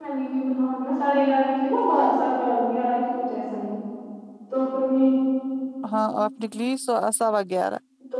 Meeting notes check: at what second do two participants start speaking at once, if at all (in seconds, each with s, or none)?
none